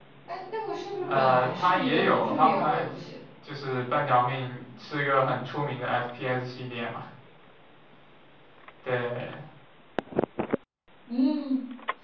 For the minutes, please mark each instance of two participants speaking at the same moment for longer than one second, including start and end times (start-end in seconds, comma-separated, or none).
1.0-2.9